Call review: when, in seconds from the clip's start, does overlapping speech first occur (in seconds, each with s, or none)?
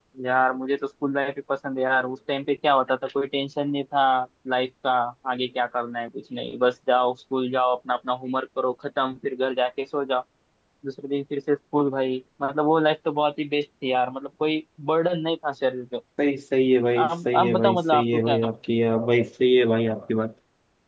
17.0 s